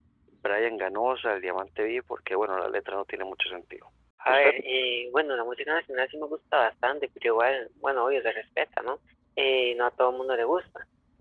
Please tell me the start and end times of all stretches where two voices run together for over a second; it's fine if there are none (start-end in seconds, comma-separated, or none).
none